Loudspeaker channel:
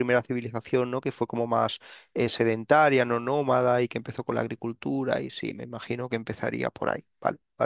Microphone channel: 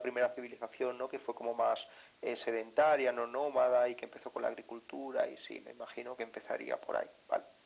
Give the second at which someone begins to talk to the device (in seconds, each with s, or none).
none